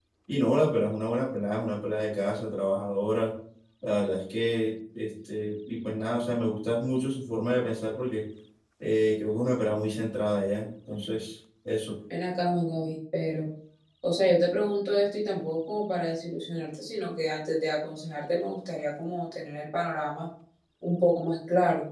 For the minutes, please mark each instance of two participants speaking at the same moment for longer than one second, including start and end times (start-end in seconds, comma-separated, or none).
none